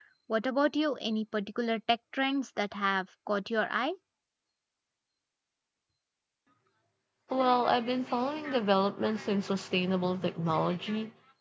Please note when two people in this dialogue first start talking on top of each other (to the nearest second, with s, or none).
none